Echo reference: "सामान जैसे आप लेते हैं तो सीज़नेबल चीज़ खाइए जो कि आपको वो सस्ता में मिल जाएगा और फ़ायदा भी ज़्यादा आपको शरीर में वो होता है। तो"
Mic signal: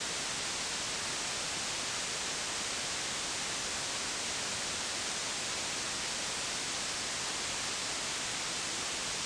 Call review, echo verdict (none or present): none